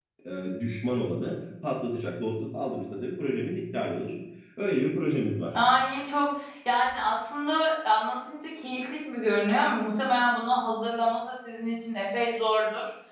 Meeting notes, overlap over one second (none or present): none